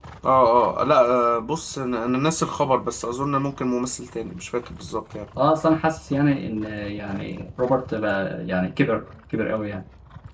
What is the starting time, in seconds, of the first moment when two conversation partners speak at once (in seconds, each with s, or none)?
none